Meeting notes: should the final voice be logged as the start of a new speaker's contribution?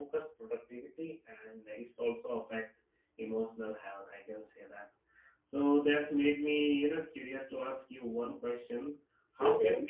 No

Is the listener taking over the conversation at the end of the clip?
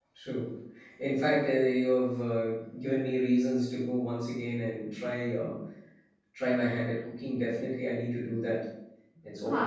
Yes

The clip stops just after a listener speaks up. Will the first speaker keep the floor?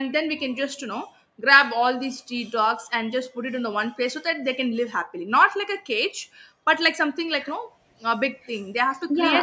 No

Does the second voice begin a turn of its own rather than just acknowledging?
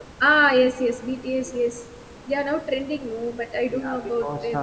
Yes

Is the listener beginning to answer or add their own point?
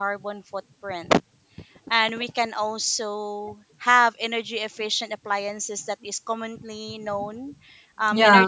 No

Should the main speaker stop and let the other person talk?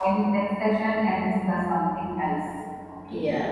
Yes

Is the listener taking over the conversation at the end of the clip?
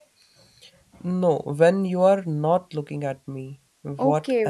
Yes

